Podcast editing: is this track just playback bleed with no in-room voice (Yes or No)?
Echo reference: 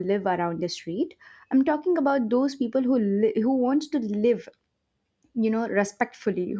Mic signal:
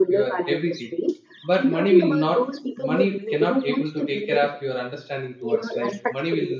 No